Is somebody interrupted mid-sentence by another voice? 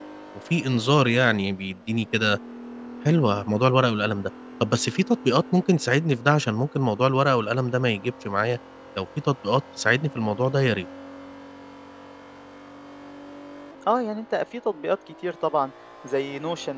No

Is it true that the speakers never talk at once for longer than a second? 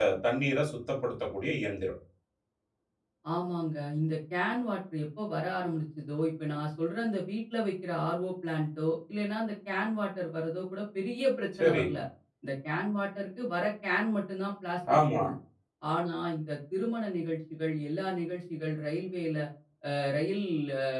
Yes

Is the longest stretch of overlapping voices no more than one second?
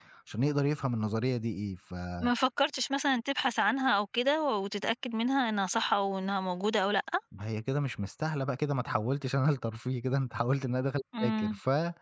Yes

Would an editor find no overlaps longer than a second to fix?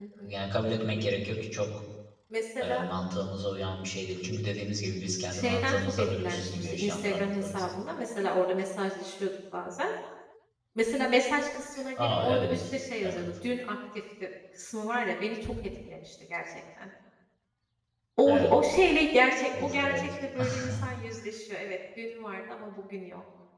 No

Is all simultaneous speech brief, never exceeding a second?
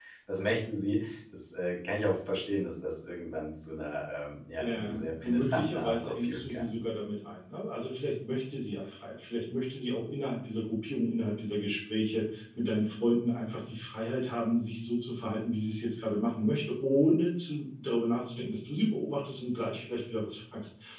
No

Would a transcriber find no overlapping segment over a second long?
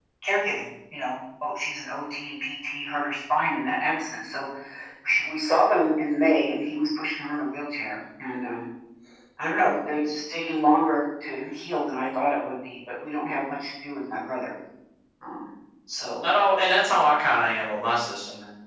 Yes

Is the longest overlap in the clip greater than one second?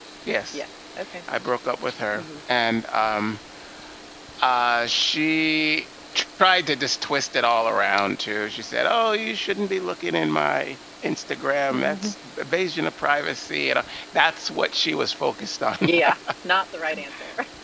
No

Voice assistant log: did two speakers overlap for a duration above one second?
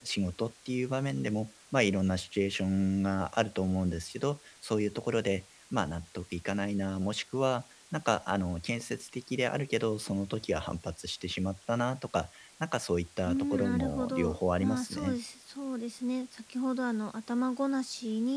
Yes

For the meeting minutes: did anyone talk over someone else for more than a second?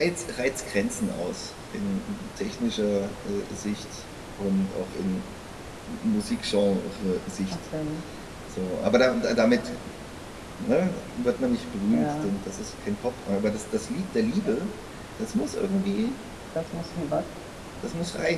No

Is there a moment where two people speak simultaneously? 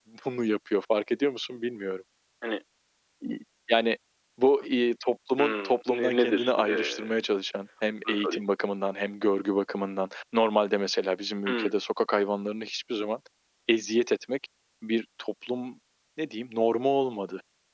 Yes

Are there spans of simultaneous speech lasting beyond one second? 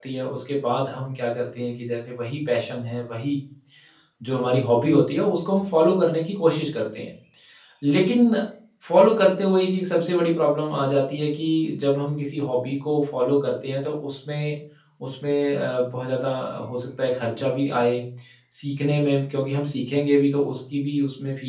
No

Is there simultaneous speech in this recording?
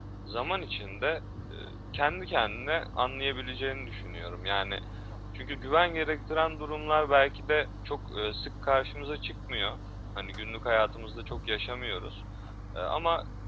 No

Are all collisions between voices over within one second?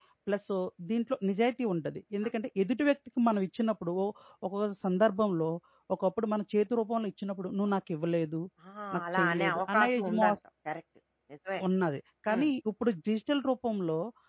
No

